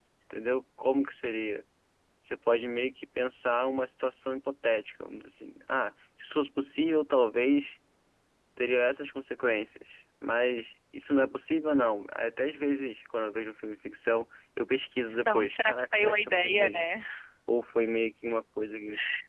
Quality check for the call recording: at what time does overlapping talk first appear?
15.2 s

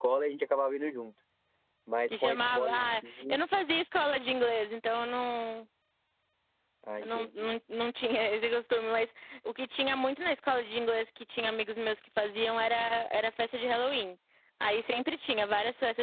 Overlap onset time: 2.1 s

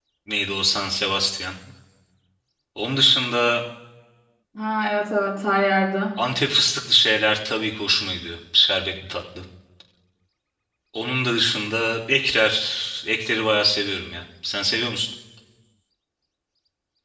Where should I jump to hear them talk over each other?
none

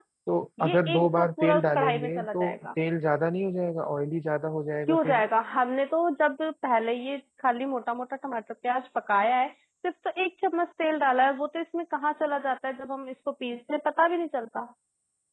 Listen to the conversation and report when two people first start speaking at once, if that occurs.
0.6 s

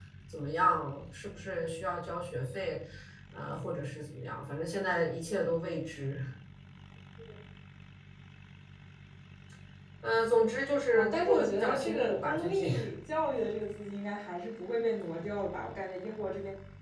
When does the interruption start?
10.9 s

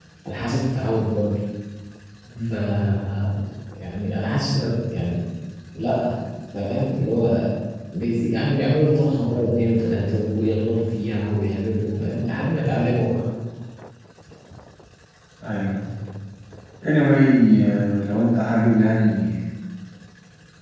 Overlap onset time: none

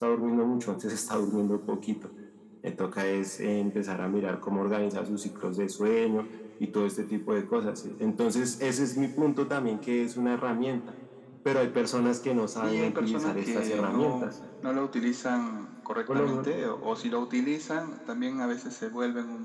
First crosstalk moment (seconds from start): 12.6 s

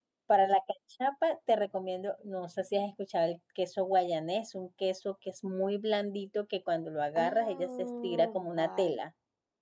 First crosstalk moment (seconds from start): 7.2 s

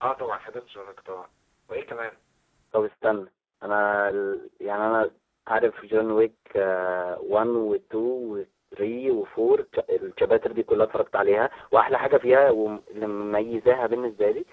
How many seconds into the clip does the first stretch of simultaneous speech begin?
none

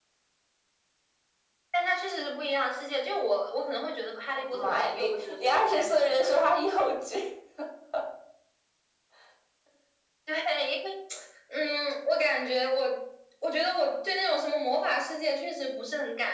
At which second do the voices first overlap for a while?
4.3 s

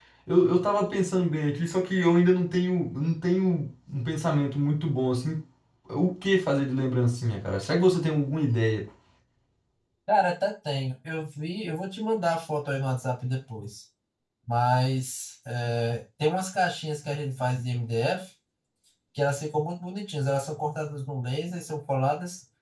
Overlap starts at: none

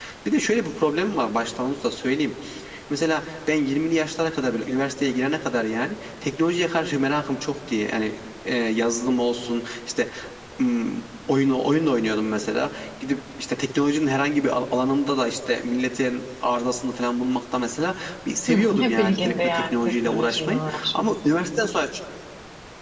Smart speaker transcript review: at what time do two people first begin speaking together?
18.5 s

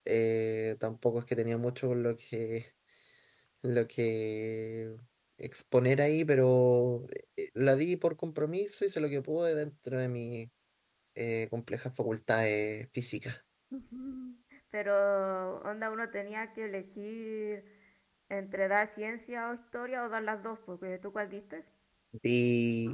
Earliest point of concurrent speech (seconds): none

